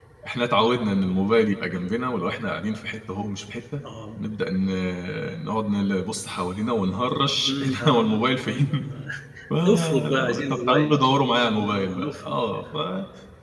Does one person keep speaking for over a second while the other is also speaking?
Yes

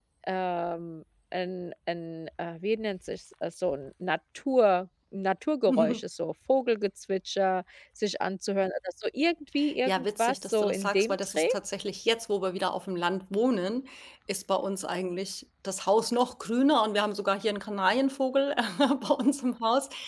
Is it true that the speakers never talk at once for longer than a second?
No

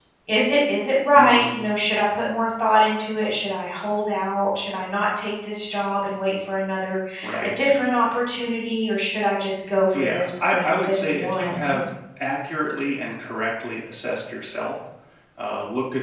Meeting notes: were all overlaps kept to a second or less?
No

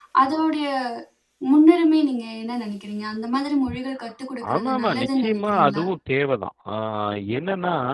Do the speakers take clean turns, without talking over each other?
No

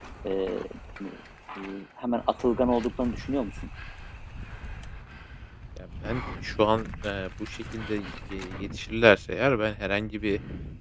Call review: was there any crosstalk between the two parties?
No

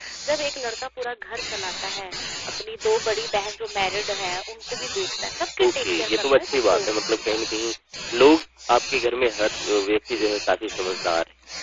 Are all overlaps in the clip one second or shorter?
No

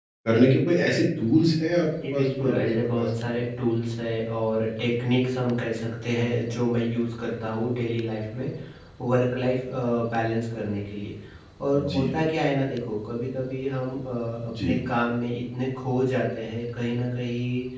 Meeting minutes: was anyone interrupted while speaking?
Yes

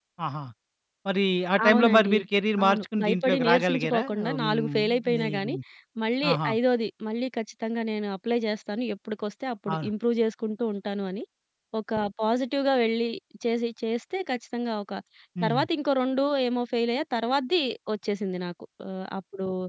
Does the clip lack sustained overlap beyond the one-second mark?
No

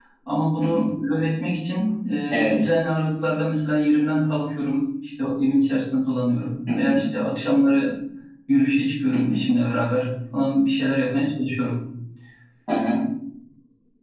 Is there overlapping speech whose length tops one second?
No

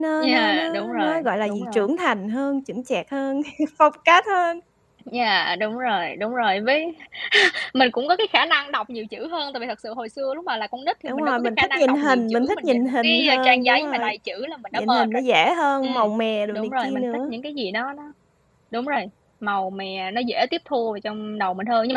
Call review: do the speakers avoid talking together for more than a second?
No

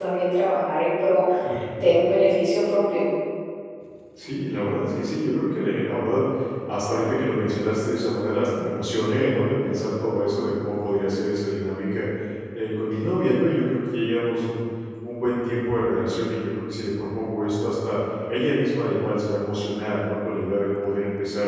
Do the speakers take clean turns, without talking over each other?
Yes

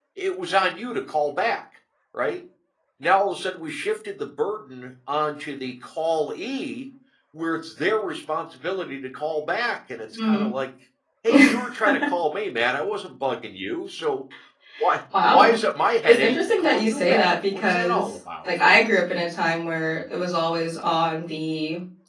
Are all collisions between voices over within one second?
No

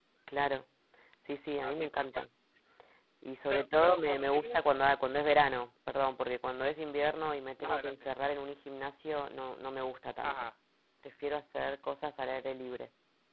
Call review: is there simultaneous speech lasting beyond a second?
Yes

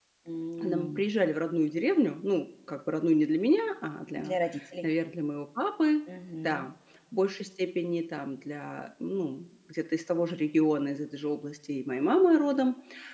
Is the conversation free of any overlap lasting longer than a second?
Yes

